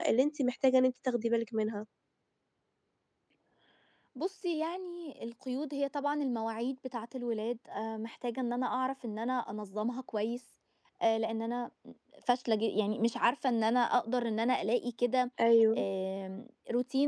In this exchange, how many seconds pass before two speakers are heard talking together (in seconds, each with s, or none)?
none